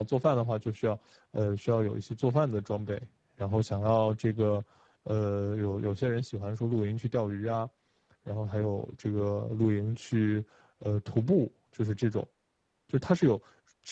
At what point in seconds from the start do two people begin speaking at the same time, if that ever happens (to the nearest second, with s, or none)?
none